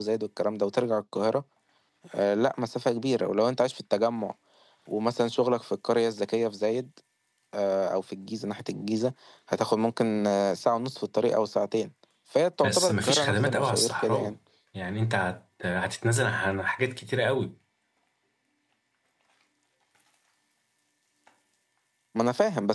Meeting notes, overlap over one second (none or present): present